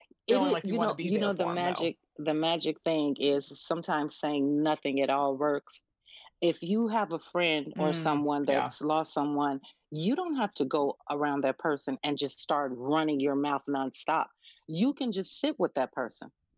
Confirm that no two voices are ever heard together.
No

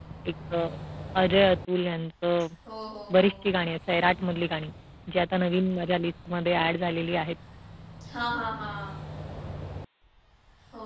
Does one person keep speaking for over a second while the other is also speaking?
No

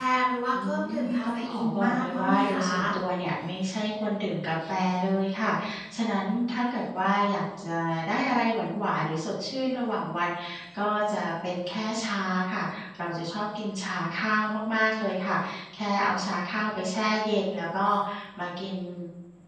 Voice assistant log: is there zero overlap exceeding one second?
No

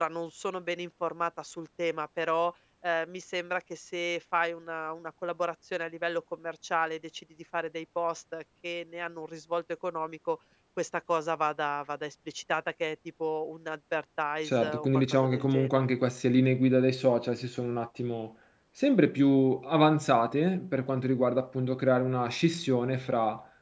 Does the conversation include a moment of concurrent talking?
Yes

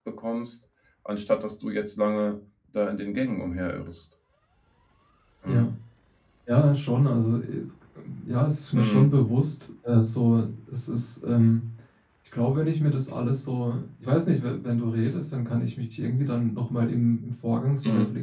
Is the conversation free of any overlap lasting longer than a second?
Yes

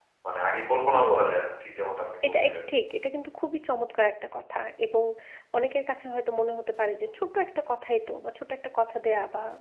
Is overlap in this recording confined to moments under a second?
Yes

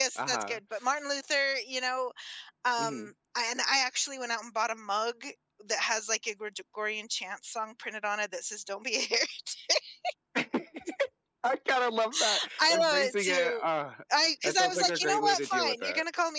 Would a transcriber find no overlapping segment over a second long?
No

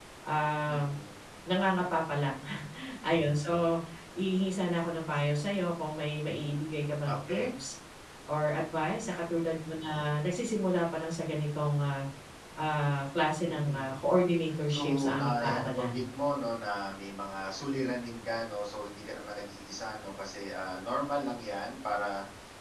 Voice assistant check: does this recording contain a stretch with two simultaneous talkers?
Yes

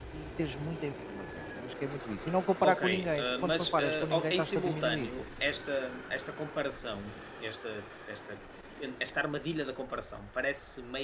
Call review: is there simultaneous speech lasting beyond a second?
Yes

